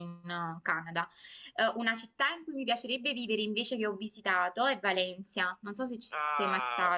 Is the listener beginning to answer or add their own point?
Yes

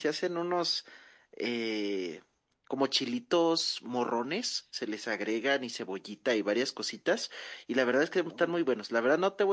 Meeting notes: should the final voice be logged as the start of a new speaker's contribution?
No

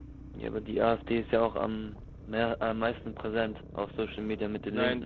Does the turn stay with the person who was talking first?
No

